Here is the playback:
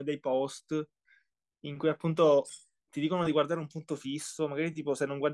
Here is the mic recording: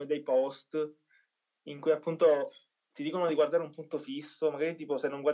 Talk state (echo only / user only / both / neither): echo only